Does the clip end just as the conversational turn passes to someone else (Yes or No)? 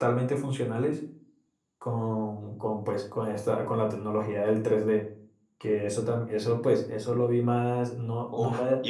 Yes